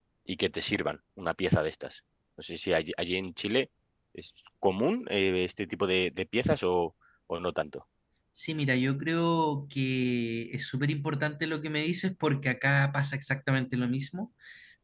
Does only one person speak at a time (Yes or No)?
Yes